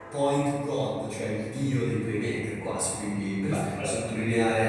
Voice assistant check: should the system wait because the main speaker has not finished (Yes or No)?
Yes